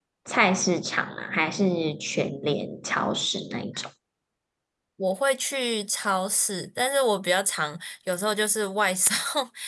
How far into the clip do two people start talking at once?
none

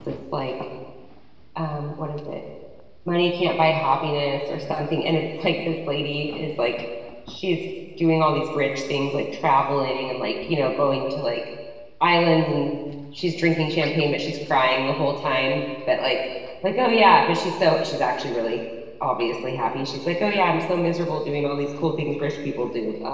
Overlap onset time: none

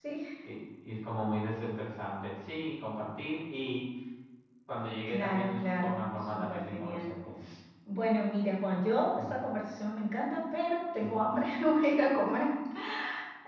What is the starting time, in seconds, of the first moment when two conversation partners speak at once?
5.1 s

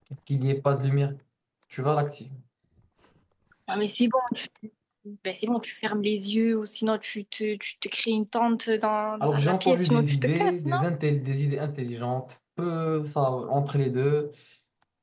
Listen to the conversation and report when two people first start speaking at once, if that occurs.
9.2 s

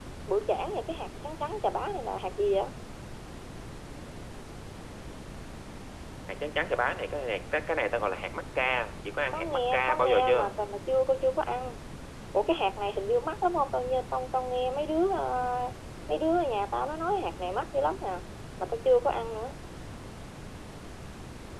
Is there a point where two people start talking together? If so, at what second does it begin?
9.3 s

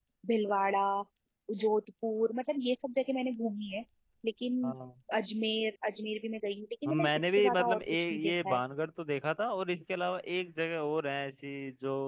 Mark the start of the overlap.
6.8 s

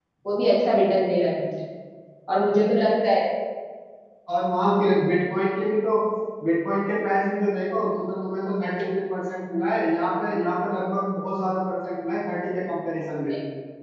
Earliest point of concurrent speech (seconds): none

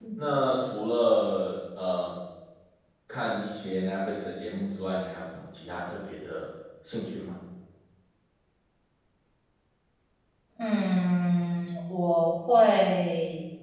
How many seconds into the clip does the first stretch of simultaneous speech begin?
none

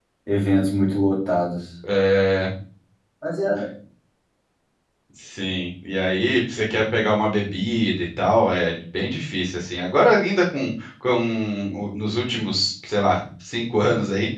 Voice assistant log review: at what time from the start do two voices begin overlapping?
none

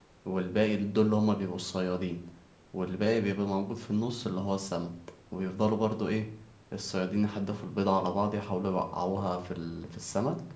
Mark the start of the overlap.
none

